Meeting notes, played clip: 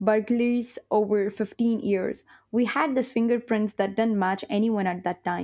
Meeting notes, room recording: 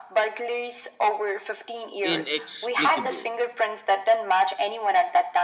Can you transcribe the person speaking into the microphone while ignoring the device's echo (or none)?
inexplicable